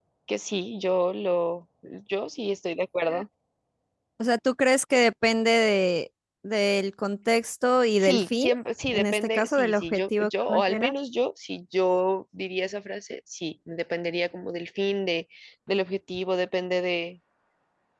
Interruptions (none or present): present